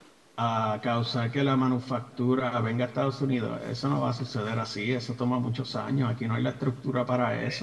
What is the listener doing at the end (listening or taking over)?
taking over